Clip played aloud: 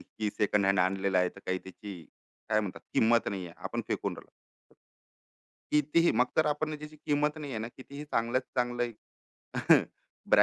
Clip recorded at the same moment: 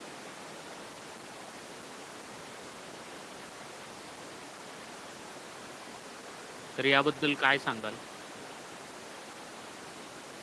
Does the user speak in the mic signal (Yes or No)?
Yes